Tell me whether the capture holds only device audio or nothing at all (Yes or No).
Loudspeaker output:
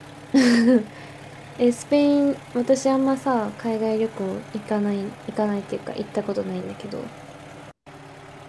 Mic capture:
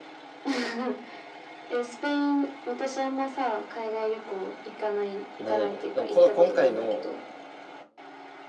No